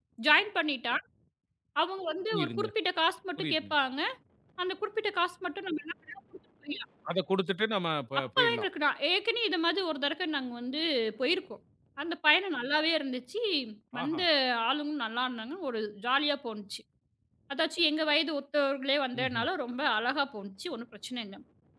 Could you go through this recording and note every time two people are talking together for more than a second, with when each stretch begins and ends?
none

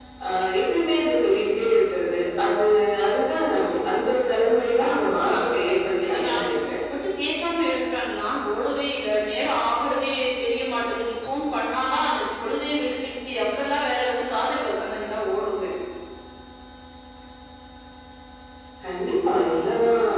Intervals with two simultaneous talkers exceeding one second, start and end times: 4.8-6.3

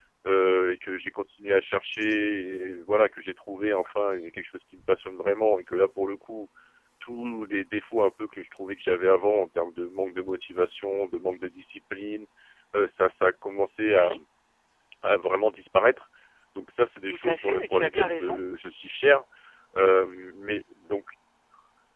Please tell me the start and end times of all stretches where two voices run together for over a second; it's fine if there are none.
17.1-18.4

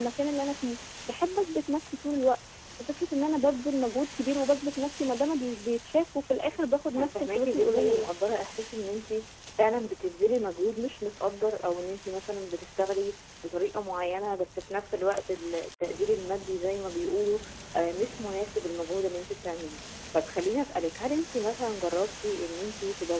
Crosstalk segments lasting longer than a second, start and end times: 6.5-8.1

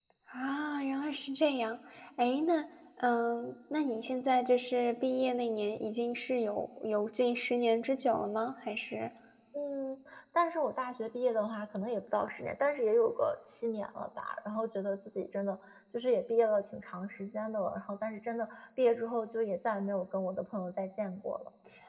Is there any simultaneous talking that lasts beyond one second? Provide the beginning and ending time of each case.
none

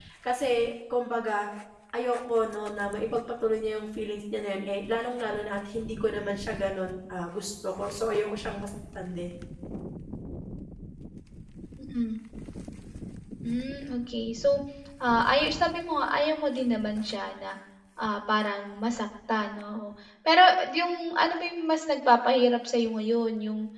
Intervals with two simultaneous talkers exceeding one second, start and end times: none

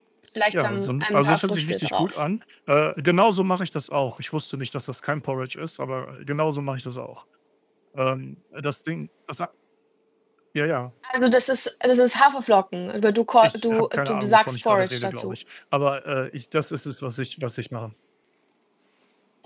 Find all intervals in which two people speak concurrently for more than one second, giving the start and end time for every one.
0.5-2.2, 13.4-15.4

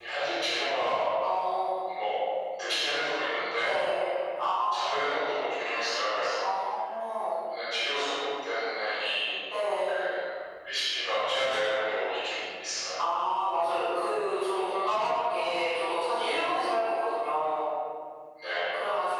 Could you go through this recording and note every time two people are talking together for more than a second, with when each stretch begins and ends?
none

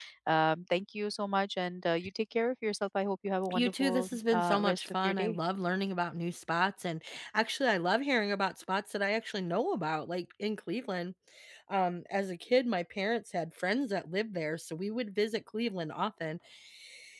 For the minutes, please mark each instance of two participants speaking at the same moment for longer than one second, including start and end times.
3.5-5.4

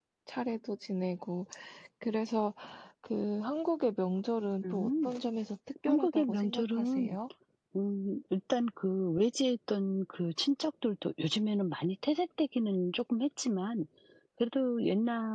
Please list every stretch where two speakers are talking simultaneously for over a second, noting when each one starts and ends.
5.9-7.2

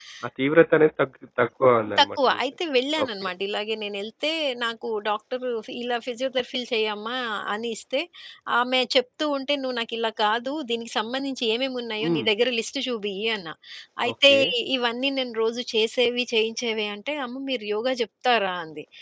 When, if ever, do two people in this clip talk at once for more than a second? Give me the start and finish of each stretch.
none

